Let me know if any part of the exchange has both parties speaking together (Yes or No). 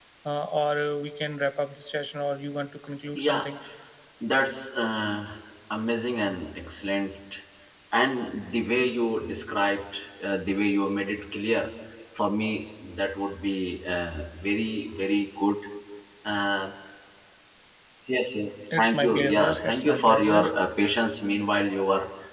Yes